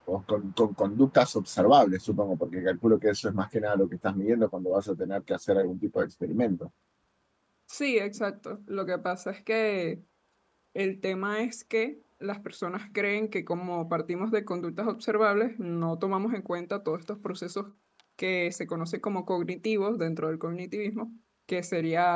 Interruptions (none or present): none